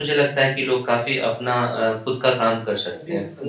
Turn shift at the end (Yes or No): Yes